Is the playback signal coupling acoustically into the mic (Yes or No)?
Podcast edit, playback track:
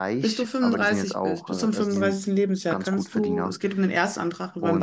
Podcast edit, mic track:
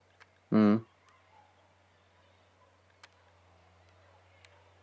No